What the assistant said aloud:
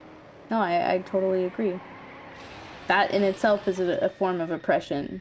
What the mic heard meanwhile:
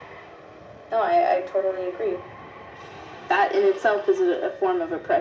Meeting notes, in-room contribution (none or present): none